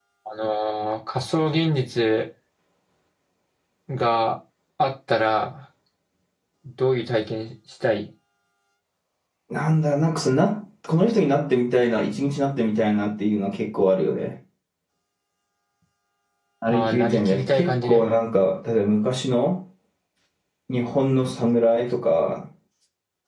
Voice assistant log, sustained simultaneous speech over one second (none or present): present